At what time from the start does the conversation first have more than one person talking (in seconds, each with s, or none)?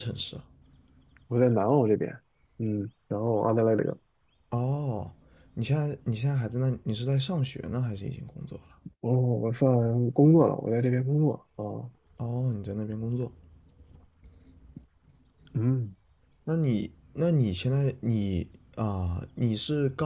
none